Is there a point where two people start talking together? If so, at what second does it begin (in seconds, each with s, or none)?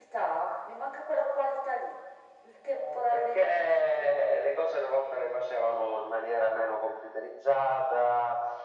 2.7 s